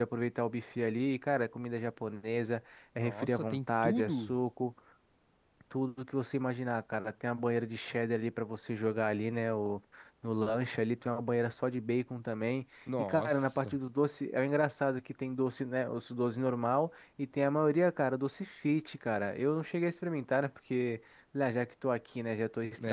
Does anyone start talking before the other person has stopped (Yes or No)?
Yes